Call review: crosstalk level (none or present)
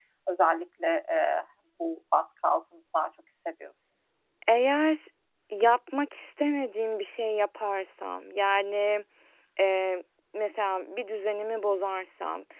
none